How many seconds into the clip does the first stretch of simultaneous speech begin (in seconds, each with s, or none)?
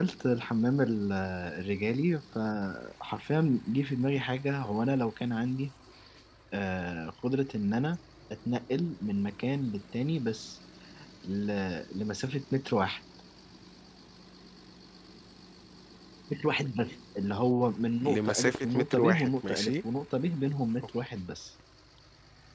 18.0 s